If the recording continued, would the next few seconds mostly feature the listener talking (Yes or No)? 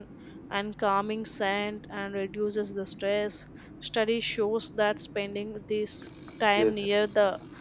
No